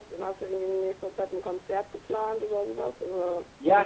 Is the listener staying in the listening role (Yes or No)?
No